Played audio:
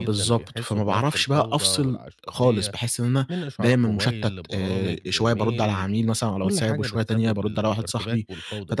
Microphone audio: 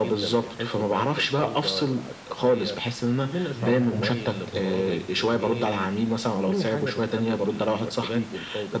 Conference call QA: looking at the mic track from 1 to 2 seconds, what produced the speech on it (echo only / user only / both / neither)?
echo only